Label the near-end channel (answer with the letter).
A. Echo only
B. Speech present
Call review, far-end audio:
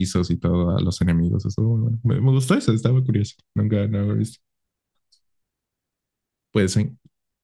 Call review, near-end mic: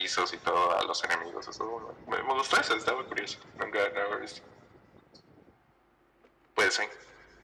A